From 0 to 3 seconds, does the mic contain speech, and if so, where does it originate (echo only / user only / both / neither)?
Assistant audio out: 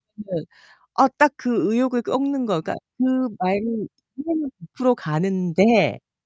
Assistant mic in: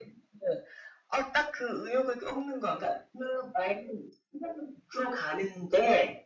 echo only